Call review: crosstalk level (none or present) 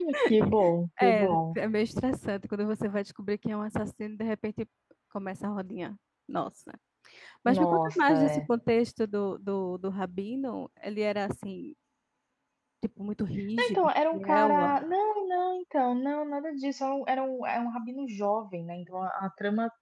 present